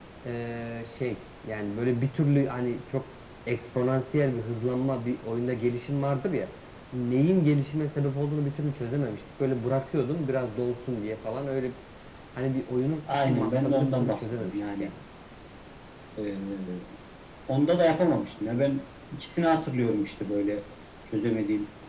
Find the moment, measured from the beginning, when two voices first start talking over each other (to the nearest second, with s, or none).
13 s